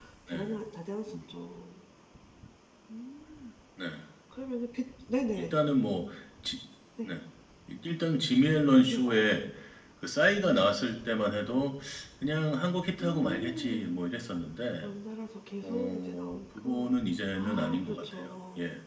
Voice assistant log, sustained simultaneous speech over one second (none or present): present